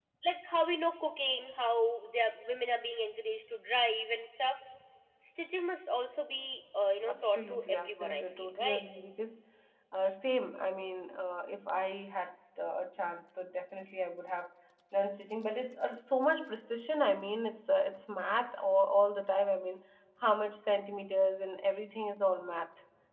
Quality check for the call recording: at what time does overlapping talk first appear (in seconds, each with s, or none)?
7.0 s